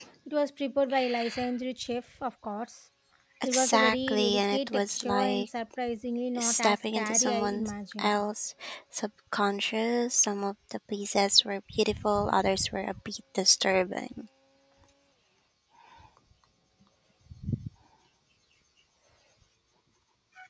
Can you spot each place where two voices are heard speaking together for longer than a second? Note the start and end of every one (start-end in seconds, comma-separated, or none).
3.4-5.4, 6.4-8.2